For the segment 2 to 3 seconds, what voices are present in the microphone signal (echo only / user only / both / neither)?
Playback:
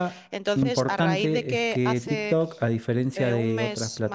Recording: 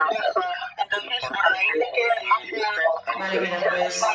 echo only